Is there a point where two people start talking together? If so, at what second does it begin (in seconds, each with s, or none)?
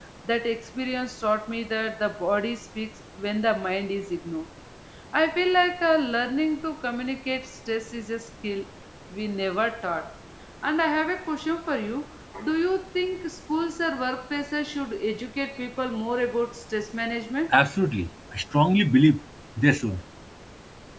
none